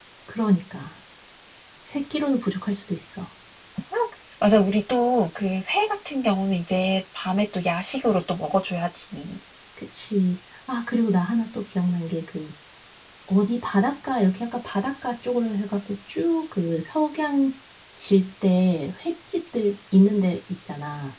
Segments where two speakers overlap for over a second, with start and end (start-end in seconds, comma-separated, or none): none